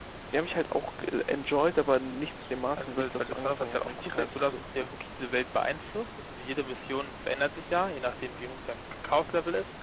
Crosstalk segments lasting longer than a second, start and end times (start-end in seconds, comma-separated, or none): 2.8-4.9